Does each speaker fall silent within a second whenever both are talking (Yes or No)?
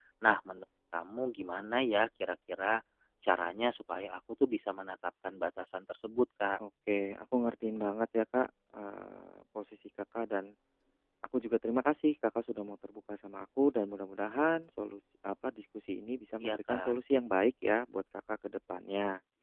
Yes